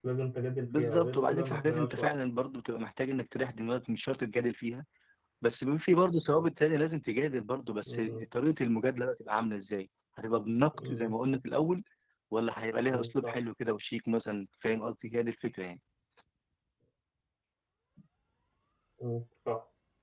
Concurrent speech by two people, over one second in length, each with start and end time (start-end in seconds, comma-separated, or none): 0.8-2.1